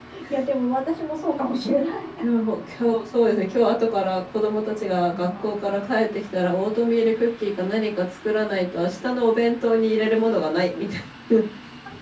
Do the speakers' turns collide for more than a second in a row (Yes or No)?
No